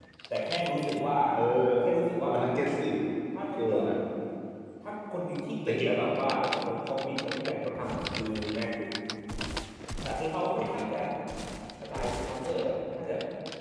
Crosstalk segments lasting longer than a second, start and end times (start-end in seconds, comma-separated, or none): none